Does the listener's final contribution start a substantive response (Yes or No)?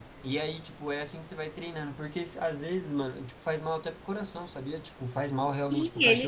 Yes